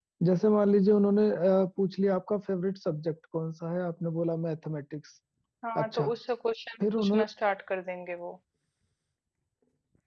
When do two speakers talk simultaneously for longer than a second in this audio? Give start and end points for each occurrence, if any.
none

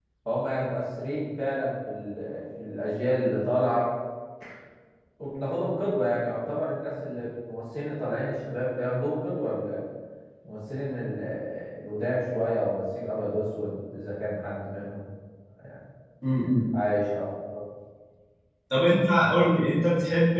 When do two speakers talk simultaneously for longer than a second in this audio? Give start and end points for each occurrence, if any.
none

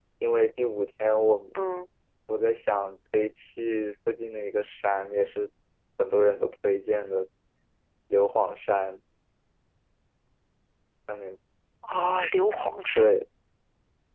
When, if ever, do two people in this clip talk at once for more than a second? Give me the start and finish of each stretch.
none

